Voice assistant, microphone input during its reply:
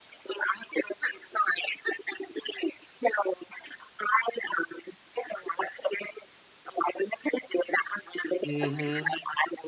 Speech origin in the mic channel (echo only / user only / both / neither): both